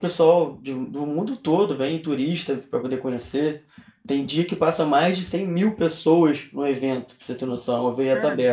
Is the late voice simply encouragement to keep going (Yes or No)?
No